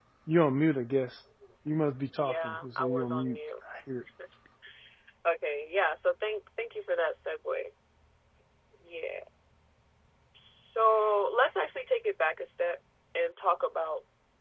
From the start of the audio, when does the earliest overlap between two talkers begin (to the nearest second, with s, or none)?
2 s